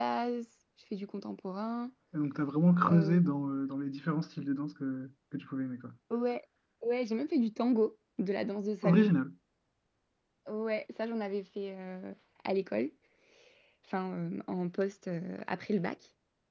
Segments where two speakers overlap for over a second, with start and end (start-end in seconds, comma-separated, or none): none